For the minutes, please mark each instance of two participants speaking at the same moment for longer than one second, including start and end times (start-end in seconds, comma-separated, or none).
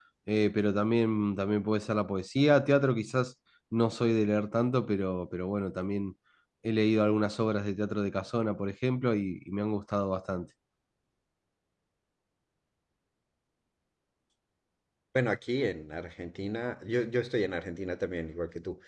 none